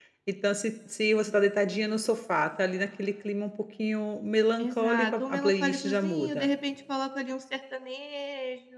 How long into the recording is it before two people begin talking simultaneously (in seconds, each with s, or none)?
4.6 s